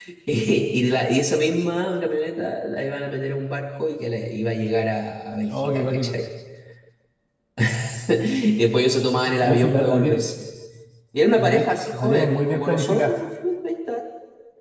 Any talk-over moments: Yes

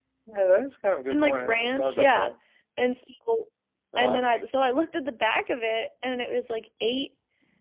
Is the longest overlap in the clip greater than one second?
Yes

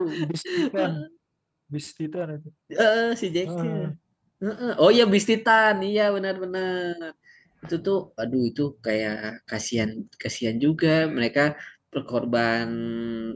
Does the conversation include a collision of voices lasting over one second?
No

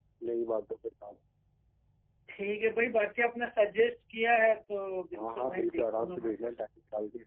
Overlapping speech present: Yes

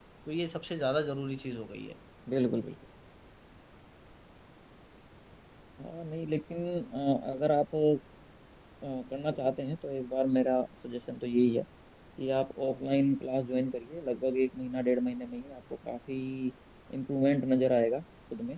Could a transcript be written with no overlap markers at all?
Yes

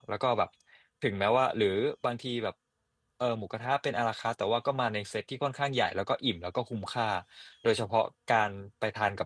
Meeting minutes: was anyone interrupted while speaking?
No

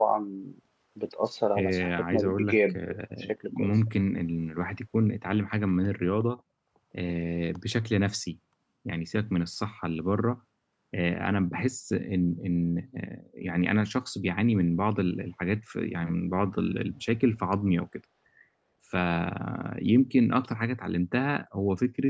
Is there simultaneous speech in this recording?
Yes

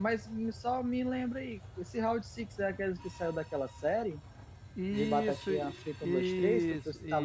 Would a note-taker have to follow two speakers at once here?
Yes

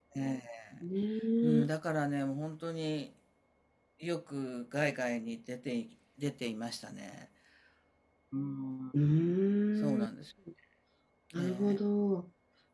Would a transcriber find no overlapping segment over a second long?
Yes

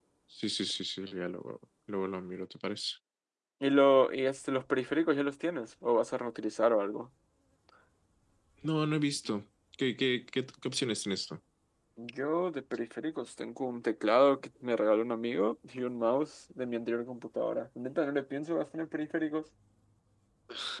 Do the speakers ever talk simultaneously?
No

